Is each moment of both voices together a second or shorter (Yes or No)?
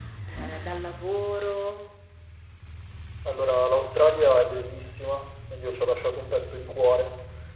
Yes